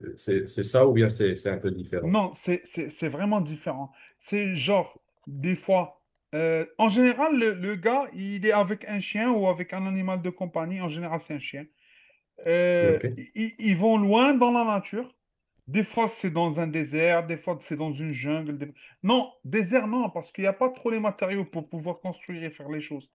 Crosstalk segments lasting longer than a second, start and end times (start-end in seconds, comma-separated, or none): none